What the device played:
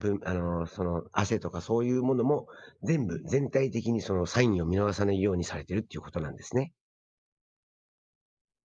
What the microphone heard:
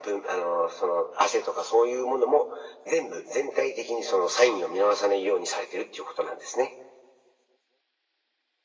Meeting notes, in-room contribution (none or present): none